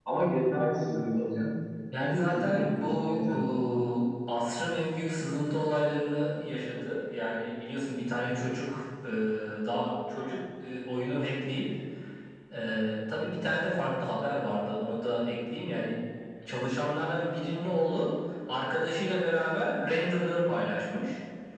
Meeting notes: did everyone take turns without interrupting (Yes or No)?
No